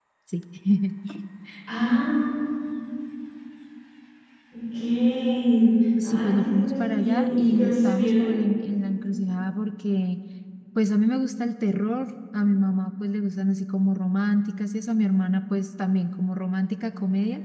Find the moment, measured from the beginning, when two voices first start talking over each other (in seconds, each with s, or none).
6.0 s